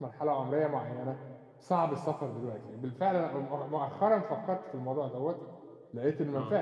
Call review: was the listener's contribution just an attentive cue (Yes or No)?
Yes